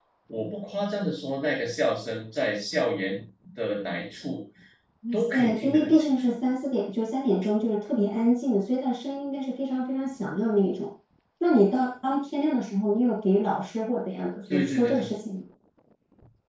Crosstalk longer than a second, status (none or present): present